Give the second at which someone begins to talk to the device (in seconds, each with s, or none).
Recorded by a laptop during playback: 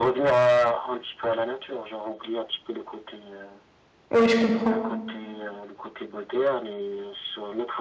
4.1 s